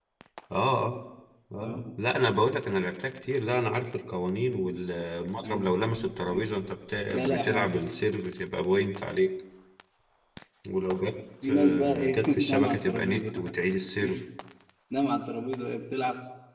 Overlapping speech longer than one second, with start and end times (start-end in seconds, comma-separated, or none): 11.5-13.5